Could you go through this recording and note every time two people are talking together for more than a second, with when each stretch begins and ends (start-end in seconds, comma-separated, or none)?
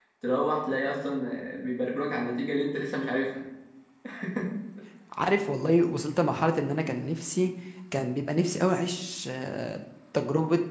none